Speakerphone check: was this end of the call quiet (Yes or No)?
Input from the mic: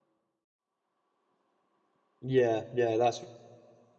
No